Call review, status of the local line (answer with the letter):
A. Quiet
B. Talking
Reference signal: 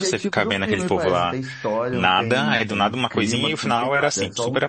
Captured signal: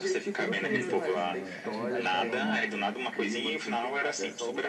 B